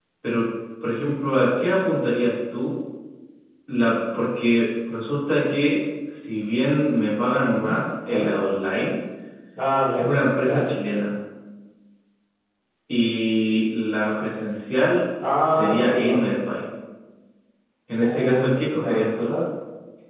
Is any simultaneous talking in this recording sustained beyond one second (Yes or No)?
Yes